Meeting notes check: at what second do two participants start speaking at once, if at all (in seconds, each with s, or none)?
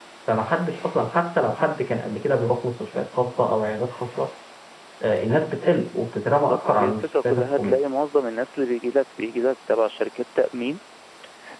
6.3 s